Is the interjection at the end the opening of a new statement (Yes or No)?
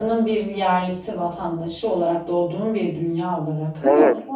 Yes